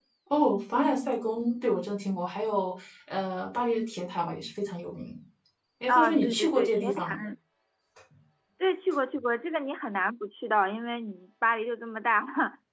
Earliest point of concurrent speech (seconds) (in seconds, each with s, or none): 5.9 s